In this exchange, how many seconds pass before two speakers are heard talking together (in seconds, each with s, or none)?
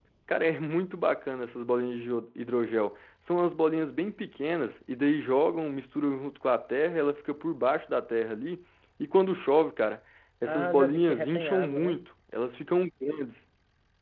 10.4 s